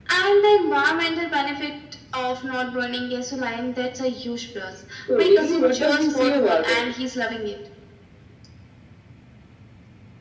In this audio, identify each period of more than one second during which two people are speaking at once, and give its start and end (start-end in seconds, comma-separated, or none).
5.2-6.8